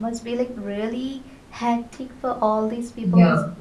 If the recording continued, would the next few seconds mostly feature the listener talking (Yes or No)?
No